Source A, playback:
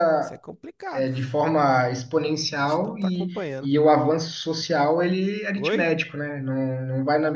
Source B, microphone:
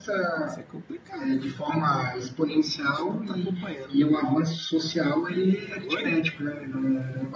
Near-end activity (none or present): none